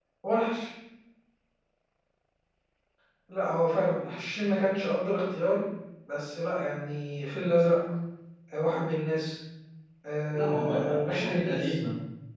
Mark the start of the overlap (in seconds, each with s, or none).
10.3 s